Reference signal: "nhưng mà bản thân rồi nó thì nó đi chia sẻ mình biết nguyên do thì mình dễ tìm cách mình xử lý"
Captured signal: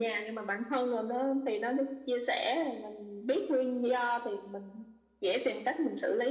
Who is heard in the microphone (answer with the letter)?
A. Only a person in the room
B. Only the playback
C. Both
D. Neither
B